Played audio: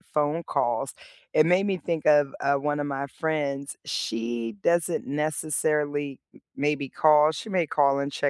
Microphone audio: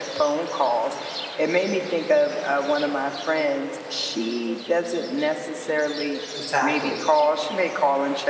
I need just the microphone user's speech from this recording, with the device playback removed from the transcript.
exactly.

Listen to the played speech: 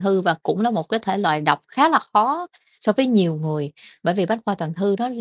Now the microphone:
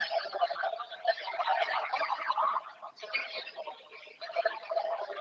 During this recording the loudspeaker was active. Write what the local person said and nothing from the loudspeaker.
none

